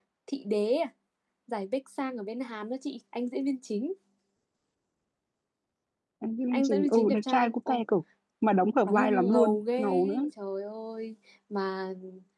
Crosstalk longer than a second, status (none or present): present